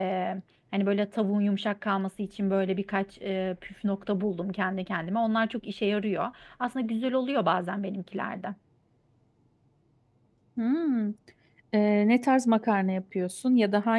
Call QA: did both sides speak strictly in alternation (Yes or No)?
Yes